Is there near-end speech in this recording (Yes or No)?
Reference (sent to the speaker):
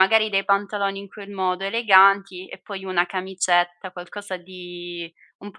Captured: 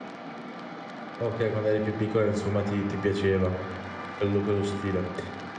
Yes